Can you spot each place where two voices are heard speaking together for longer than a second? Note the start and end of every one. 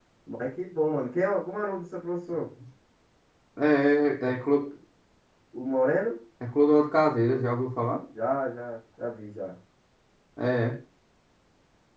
none

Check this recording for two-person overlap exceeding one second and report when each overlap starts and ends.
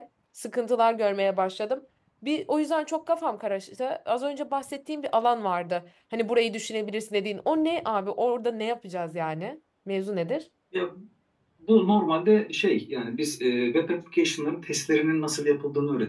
none

